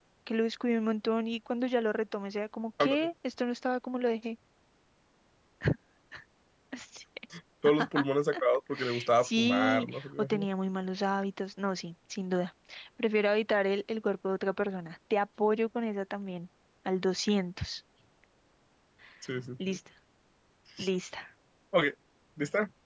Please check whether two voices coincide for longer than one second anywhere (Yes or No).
Yes